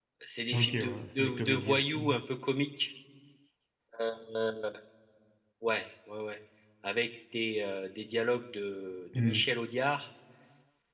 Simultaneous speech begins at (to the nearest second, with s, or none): 1 s